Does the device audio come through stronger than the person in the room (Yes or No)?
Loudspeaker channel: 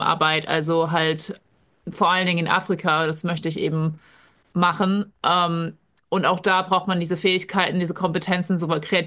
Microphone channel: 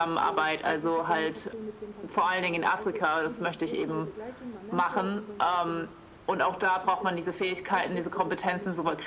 Yes